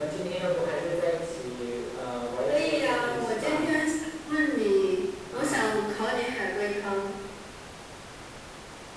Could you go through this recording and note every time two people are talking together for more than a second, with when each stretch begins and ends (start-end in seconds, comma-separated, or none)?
2.5-3.7